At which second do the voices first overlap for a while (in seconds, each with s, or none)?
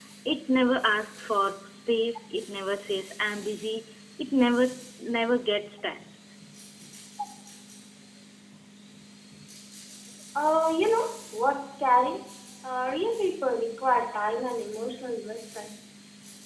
none